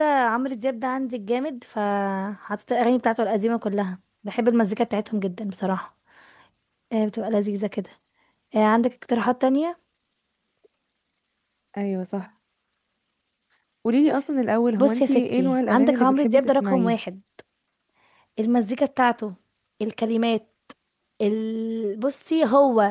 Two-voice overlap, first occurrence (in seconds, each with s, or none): 14.8 s